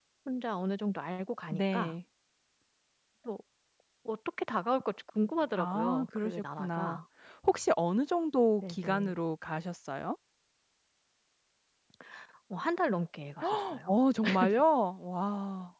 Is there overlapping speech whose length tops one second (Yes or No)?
Yes